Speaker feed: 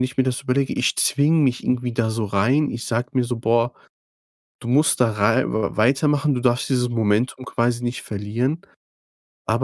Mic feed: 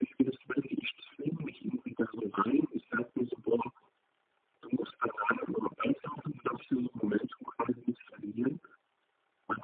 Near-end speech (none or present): none